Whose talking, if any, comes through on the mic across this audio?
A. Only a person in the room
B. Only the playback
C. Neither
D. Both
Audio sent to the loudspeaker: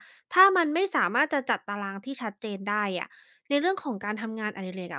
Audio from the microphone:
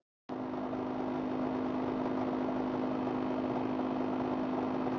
C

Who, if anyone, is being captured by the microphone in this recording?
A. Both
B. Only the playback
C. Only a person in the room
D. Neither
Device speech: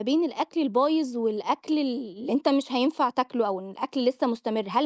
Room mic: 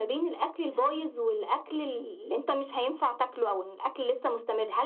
A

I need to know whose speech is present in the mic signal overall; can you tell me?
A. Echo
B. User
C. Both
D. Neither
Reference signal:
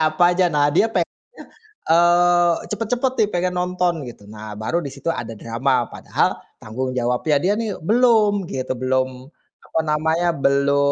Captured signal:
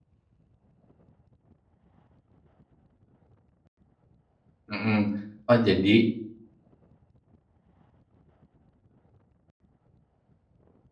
B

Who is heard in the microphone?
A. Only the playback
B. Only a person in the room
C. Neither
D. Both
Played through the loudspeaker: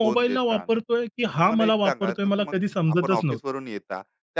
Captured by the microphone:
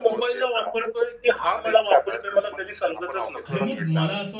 D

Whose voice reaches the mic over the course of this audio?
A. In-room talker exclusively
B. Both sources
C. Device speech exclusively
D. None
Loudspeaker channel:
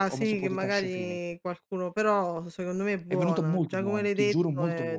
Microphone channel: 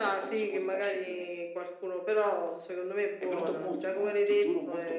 C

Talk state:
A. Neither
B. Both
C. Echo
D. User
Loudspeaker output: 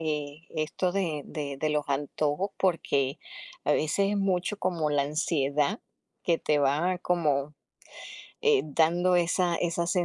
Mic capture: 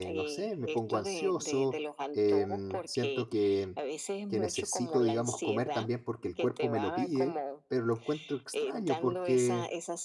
B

